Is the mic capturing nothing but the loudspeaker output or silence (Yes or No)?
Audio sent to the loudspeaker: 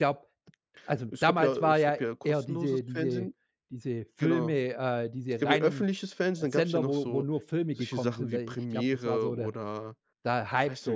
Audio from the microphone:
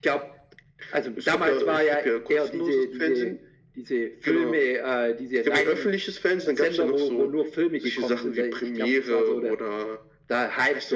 Yes